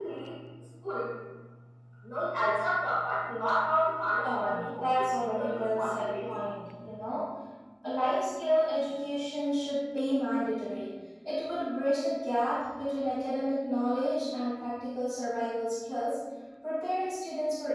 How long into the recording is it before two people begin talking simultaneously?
4.2 s

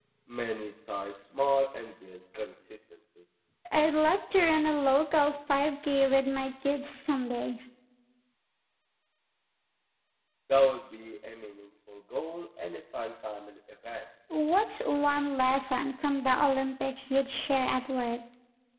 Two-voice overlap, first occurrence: none

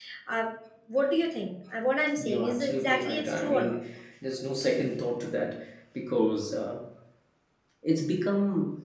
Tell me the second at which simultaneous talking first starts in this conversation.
2.2 s

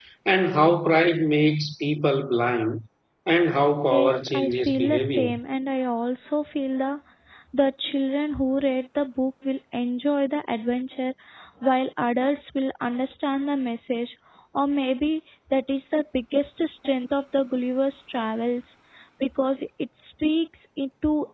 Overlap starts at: 3.9 s

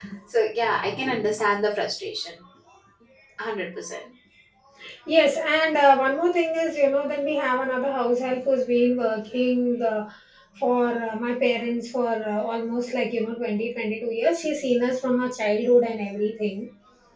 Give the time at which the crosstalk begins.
none

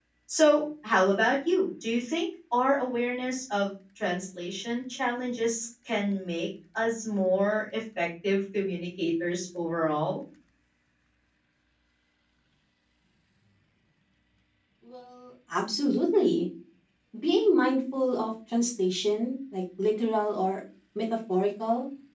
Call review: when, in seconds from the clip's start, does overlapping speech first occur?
none

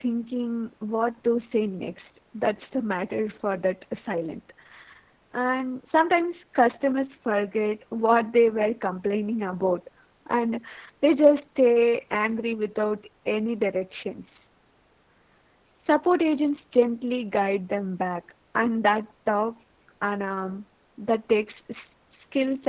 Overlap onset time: none

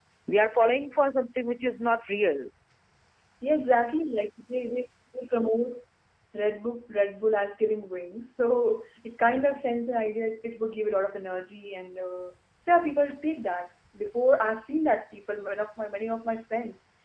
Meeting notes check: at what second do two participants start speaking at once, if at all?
none

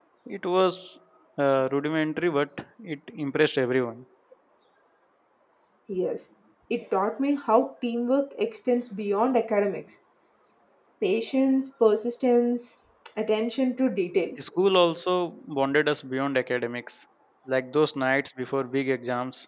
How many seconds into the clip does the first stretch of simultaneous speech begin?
none

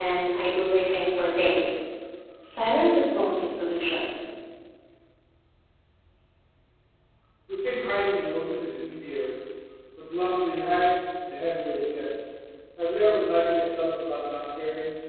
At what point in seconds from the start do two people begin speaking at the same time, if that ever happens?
none

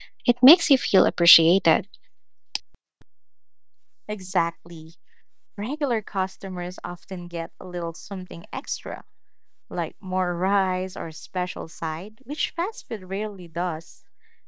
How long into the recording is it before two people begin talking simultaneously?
none

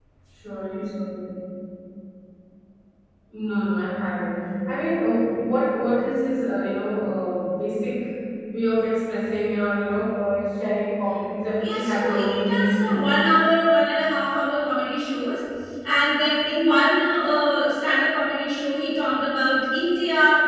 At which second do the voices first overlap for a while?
11.6 s

